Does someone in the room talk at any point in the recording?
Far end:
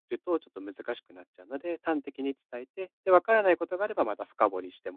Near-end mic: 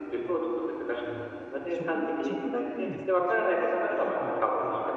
Yes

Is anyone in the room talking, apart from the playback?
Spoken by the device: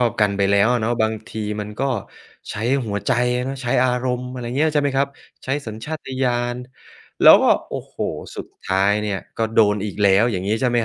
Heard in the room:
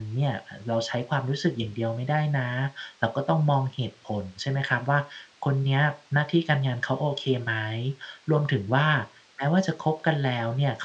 Yes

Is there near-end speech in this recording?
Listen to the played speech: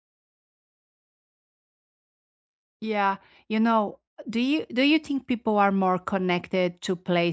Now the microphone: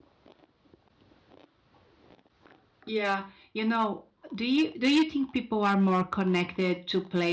No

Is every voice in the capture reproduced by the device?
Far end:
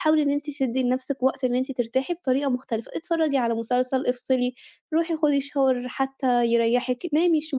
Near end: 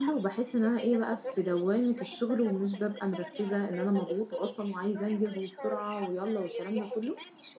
No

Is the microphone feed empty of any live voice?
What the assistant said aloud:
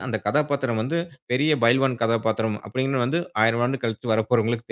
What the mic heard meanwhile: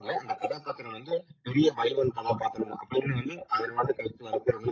Yes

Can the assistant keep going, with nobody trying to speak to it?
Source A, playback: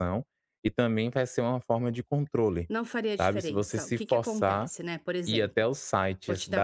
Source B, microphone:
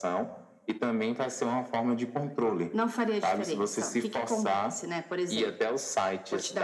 Yes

